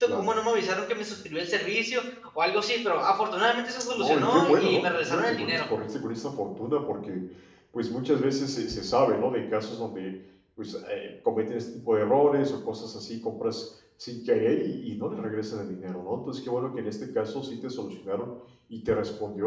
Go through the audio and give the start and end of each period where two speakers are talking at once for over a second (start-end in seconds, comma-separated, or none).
3.9-5.6